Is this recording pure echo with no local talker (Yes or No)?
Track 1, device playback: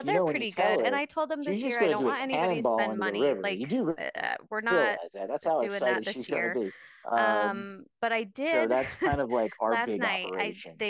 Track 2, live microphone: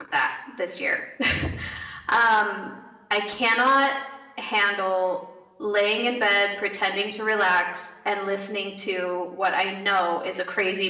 No